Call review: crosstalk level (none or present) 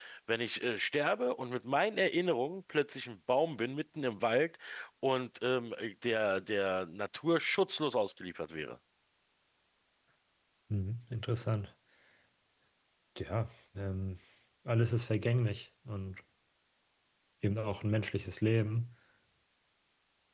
none